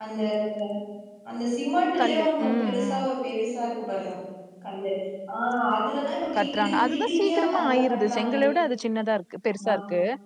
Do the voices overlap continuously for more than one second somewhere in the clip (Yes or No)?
Yes